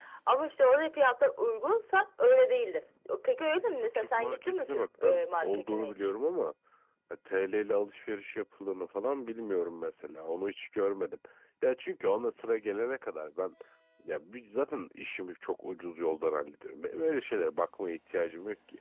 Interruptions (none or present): present